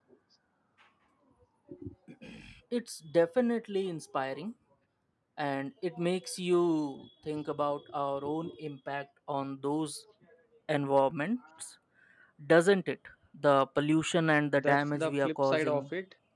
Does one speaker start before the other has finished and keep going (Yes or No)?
Yes